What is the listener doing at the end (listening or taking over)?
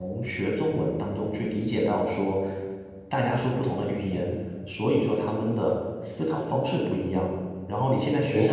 taking over